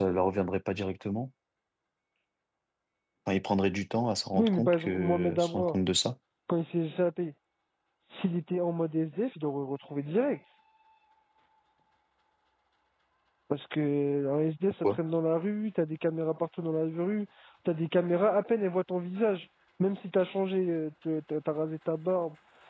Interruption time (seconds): 4.3 s

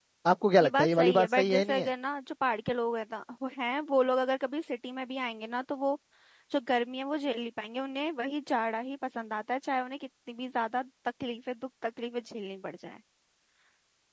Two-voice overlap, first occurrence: 0.6 s

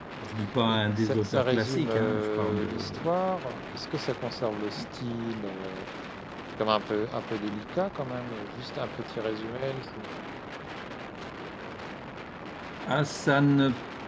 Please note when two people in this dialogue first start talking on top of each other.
0.7 s

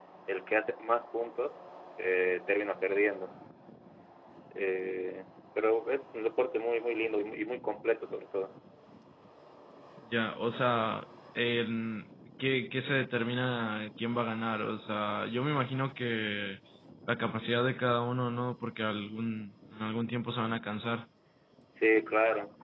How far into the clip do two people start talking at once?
none

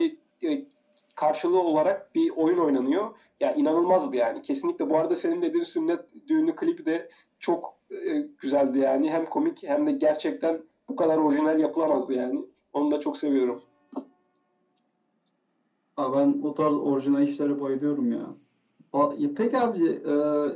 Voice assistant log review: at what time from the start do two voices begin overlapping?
none

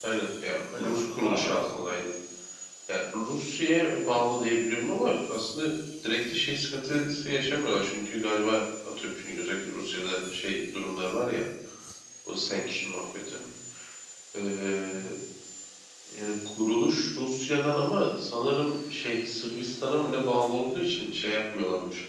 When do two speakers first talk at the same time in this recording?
0.7 s

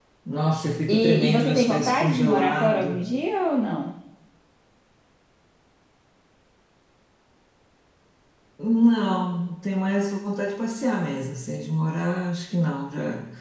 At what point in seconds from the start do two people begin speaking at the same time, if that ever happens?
0.9 s

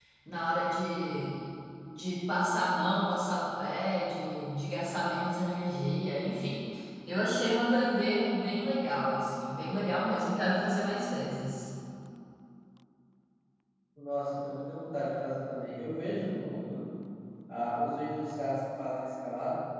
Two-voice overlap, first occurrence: none

